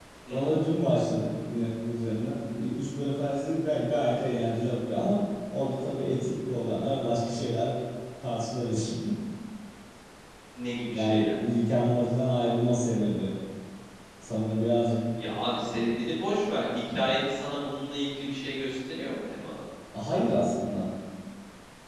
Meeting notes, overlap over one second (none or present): none